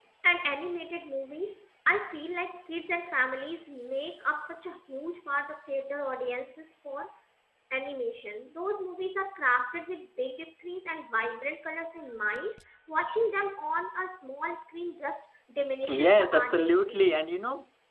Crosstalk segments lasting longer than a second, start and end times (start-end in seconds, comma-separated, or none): 15.9-17.1